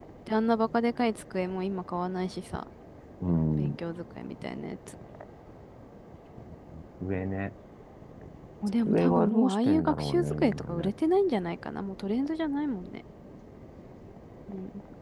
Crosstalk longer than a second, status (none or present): present